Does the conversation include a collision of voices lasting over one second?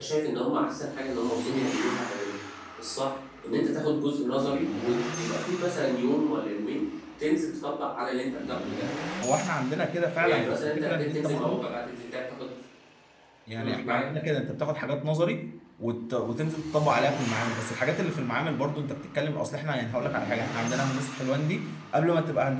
Yes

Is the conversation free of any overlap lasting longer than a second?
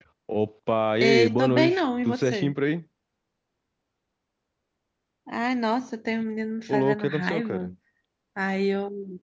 No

